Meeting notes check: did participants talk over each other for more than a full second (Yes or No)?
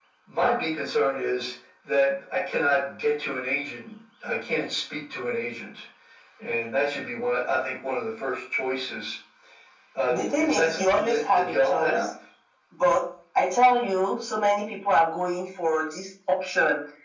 Yes